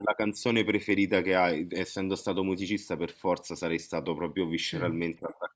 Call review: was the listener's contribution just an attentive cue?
Yes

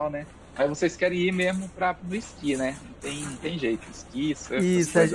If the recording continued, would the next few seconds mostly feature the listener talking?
Yes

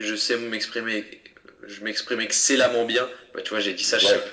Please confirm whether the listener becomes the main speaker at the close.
No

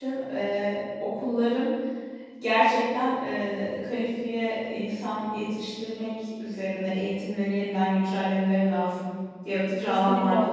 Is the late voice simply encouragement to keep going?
No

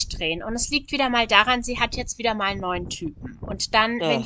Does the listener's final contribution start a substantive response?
No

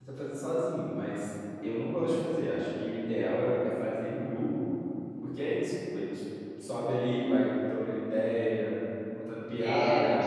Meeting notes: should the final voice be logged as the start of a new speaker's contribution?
Yes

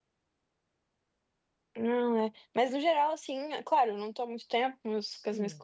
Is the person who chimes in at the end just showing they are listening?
Yes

